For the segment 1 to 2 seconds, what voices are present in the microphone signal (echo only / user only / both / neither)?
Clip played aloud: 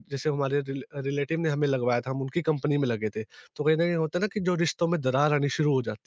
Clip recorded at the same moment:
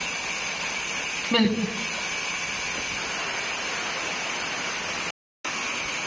user only